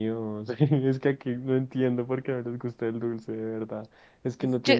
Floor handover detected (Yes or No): No